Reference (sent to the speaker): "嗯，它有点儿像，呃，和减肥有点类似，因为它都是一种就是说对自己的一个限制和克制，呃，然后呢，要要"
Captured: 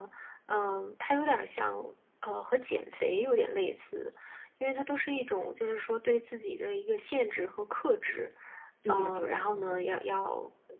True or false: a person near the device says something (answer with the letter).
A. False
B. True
B